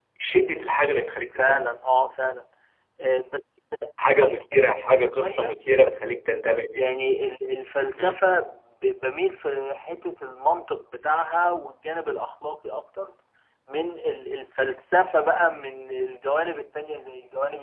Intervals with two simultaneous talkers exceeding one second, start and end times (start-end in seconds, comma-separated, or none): none